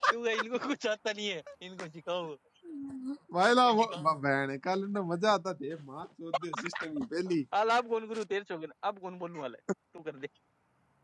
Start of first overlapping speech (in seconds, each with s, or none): none